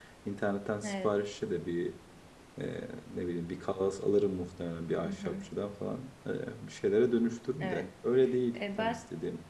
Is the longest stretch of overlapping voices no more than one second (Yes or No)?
Yes